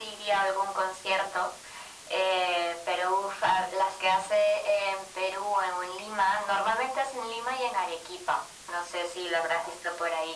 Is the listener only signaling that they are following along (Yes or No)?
Yes